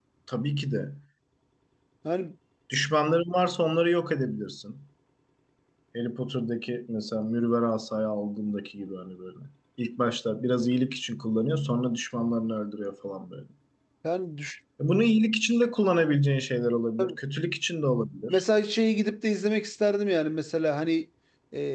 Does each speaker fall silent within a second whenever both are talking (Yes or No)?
Yes